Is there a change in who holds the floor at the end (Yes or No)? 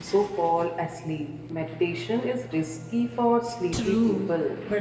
Yes